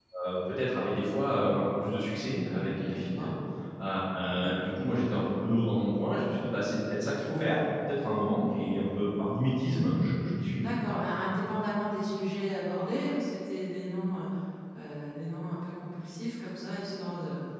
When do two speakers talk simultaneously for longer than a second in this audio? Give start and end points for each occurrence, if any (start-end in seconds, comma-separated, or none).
none